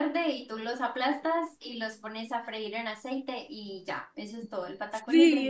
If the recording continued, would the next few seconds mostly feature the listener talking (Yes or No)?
Yes